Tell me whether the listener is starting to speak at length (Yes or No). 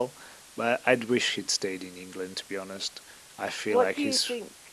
Yes